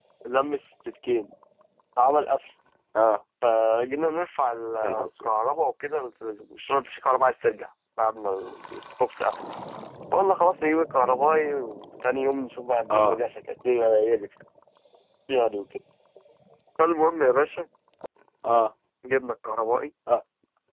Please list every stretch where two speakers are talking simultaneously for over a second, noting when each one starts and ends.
none

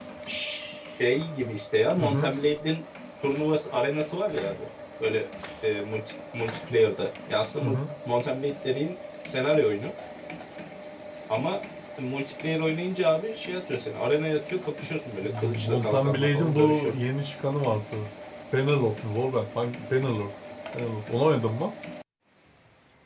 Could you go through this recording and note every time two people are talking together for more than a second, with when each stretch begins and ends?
15.4-16.9

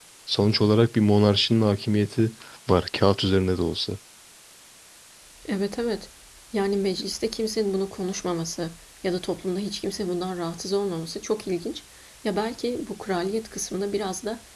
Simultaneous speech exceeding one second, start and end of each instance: none

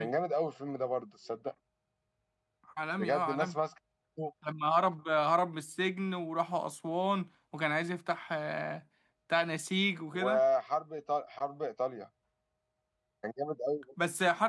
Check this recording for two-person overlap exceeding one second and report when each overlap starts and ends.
none

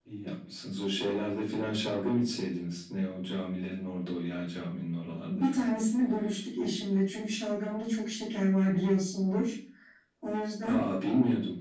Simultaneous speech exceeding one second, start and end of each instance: none

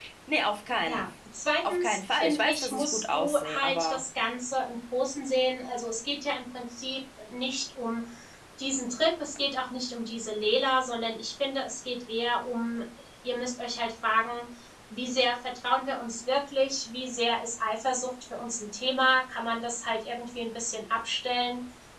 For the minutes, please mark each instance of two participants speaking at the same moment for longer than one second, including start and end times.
1.6-4.0

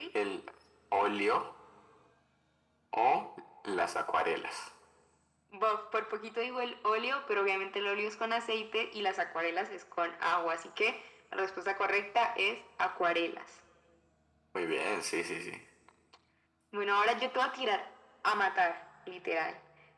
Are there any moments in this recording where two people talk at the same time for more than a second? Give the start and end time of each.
none

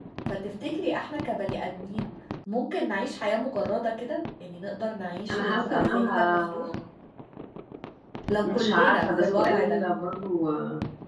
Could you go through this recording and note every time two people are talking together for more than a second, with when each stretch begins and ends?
5.3-6.7, 8.4-9.8

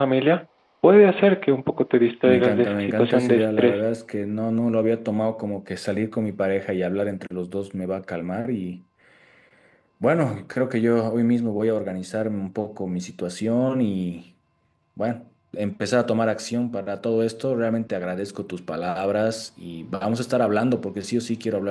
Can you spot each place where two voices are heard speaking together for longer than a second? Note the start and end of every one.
2.3-3.8

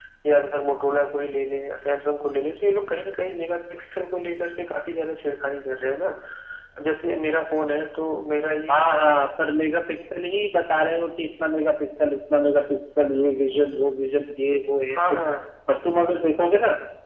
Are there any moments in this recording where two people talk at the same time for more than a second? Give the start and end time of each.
none

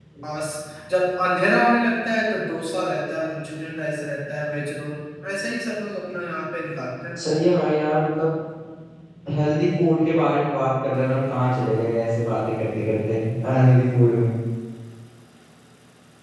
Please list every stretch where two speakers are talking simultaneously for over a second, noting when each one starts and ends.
none

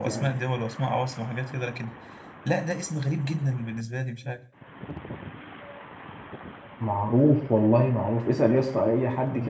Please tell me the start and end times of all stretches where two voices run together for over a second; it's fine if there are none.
none

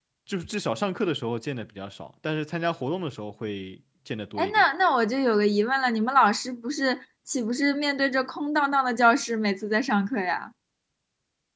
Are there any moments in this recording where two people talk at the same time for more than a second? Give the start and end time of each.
none

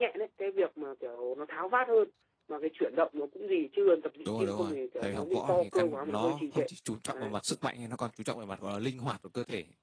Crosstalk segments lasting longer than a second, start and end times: 4.2-6.7

